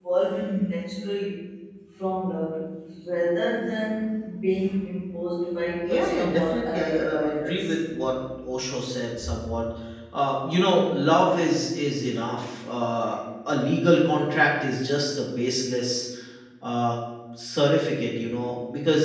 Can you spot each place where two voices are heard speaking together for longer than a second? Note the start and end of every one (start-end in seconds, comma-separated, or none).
5.8-7.6